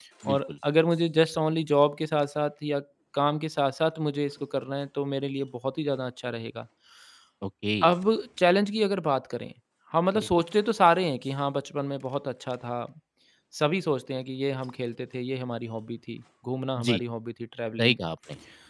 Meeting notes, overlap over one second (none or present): none